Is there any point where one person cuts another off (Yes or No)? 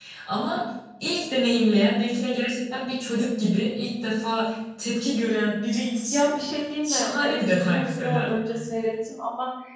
Yes